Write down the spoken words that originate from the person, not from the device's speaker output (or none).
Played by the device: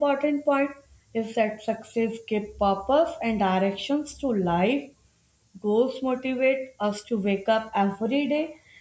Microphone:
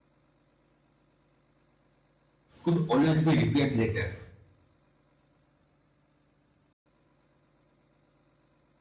could always be repaired later